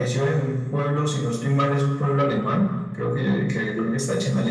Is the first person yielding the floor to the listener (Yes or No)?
No